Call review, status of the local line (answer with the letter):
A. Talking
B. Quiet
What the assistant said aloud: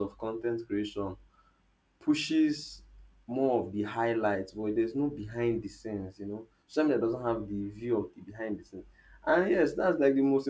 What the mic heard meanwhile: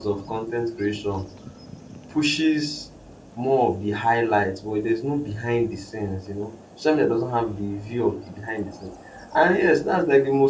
B